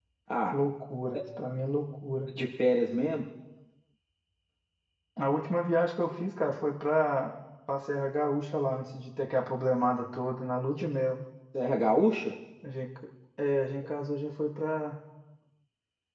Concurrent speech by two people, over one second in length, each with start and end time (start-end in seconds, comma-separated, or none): none